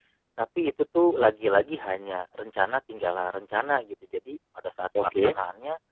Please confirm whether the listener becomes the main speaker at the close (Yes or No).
No